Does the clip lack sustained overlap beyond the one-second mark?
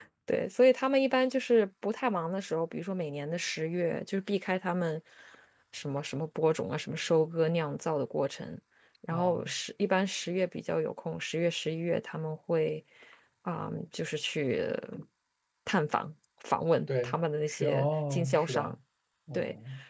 No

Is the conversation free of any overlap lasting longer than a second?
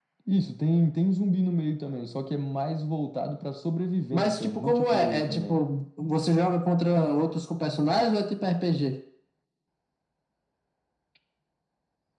No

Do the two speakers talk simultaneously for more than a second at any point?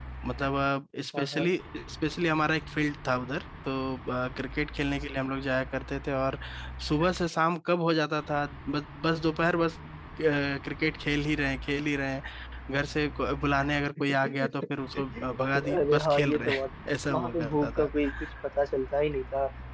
Yes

